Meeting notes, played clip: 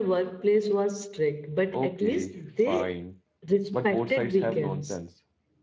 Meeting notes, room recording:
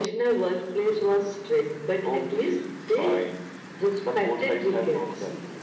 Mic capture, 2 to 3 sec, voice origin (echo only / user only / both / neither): echo only